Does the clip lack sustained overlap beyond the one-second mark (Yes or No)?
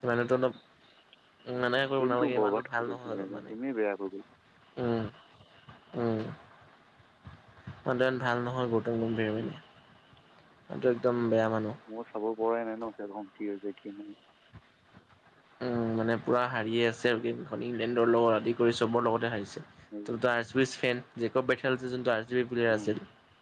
No